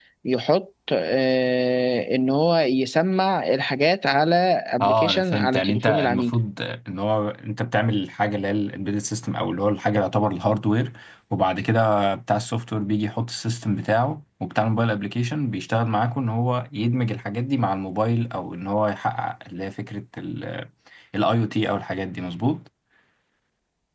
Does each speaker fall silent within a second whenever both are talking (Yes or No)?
No